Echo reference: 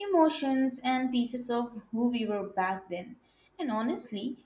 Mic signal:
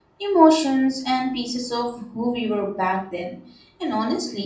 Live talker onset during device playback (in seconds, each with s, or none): none